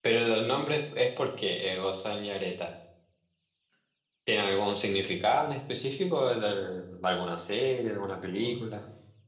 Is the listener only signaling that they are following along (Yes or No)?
No